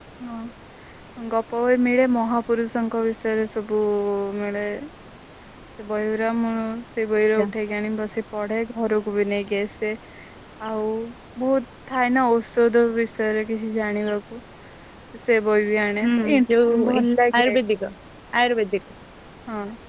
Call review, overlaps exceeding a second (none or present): none